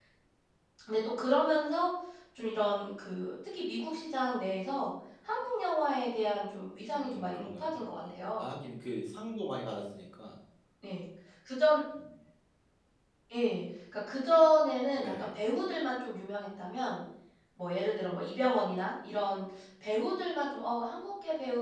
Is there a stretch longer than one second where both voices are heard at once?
Yes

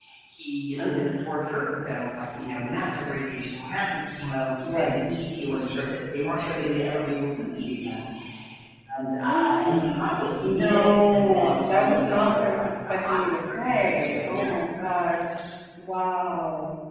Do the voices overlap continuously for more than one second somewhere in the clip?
Yes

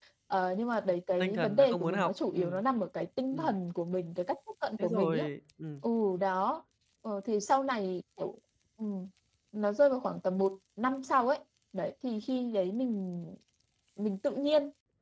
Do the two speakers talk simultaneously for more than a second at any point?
Yes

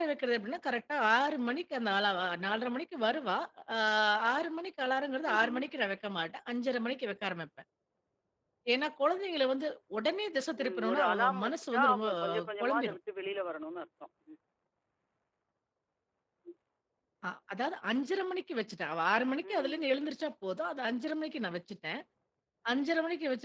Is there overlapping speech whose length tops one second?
Yes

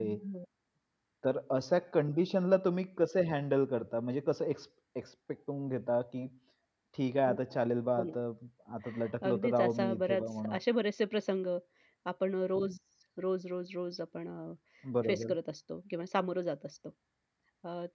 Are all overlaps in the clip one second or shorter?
No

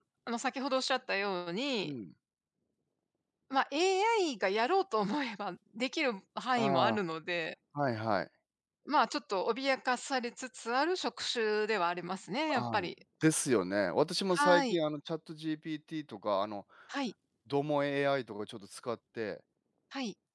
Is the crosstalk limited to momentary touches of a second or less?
Yes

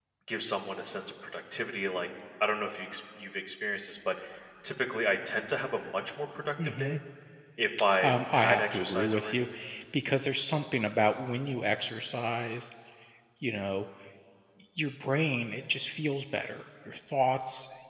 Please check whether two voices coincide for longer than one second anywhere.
Yes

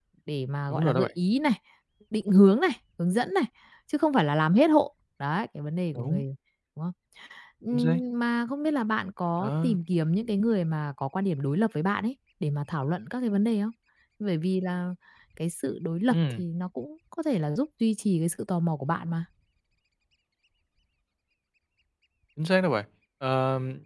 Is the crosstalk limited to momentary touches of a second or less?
Yes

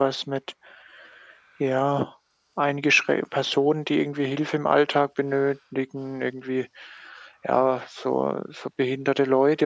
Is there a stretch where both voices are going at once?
No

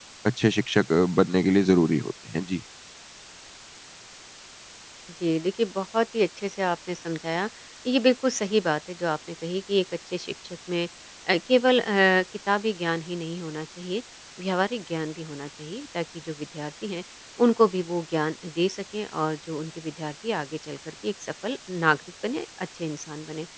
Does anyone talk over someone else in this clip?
No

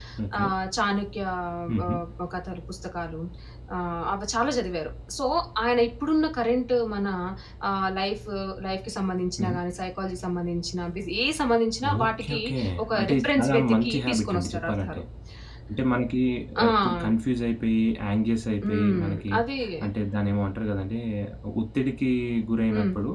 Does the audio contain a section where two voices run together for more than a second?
Yes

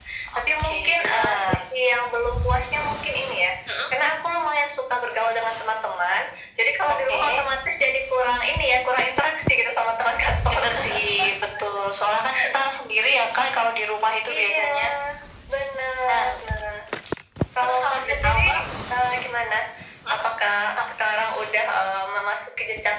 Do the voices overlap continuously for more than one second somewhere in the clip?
Yes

